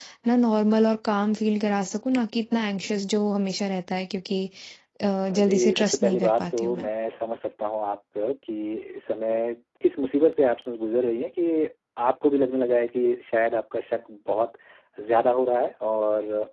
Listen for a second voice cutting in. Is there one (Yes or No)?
Yes